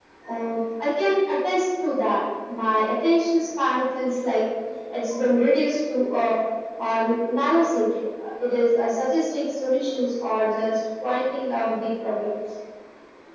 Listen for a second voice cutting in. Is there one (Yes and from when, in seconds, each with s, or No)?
No